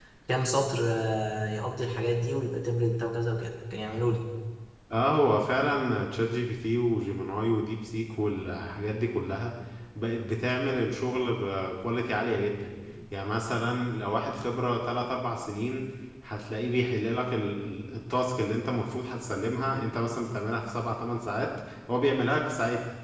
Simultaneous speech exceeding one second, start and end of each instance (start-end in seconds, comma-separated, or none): none